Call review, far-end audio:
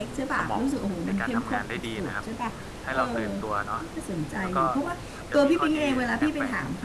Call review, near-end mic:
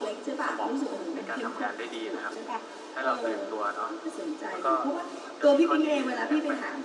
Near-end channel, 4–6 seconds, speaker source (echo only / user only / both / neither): echo only